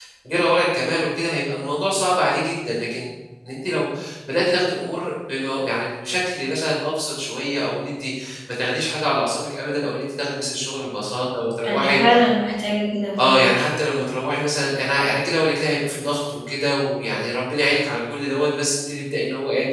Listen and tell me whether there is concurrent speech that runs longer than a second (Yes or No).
No